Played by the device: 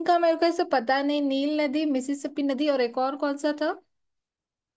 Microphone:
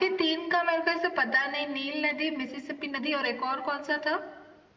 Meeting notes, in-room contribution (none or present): none